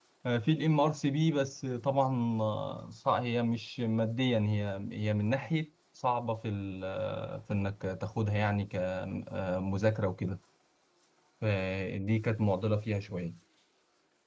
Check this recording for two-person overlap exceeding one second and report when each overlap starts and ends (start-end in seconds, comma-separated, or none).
none